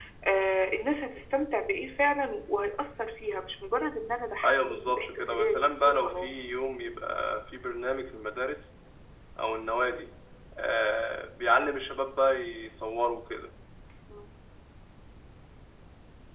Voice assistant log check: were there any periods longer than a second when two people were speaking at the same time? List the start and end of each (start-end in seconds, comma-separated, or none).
4.4-6.4